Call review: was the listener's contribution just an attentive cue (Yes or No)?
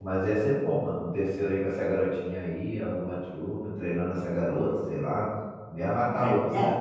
No